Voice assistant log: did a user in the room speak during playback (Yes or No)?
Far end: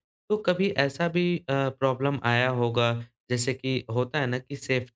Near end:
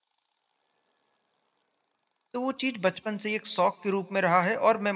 Yes